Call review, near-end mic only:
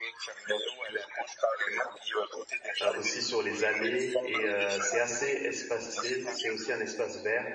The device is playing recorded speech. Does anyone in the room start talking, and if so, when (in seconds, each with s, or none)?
2.8 s